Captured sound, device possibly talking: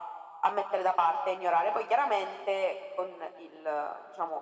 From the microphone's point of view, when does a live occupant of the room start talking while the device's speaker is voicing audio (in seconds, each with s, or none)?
none